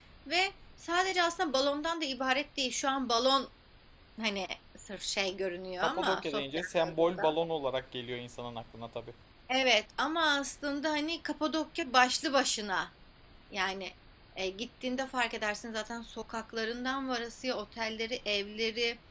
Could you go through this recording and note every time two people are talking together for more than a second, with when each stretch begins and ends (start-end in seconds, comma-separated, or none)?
5.8-7.3